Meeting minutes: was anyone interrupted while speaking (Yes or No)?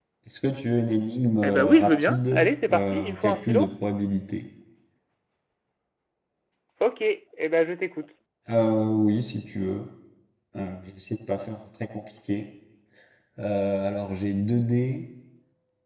Yes